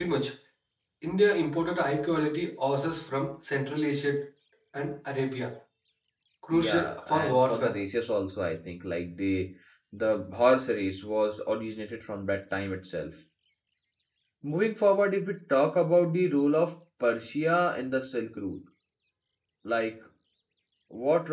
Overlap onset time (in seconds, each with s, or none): 6.5 s